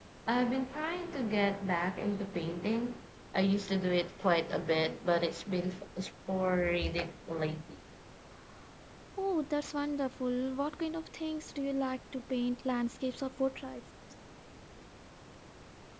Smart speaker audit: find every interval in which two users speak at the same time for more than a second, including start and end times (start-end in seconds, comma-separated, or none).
none